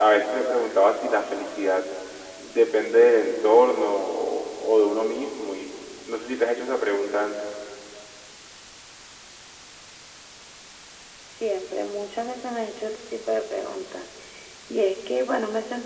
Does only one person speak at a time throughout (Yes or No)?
Yes